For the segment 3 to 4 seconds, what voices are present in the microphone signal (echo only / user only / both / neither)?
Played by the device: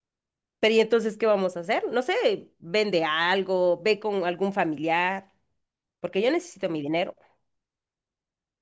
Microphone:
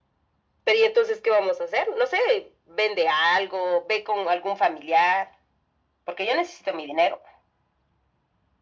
echo only